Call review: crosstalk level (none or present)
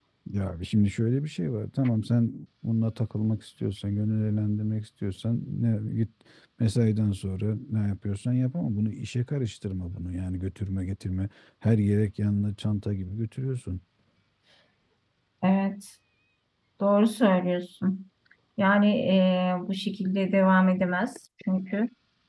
none